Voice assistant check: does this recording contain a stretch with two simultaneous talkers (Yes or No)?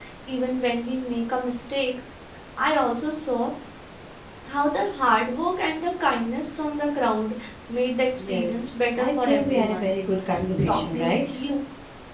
Yes